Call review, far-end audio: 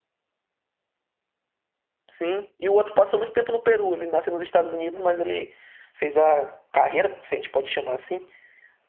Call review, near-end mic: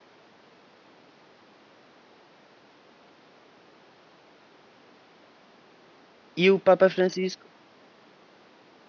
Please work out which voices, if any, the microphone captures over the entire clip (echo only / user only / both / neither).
user only